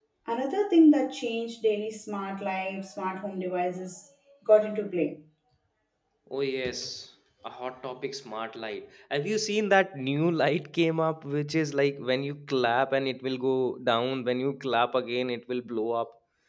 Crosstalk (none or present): none